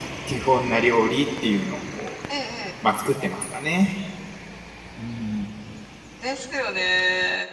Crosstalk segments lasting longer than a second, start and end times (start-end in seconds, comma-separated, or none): none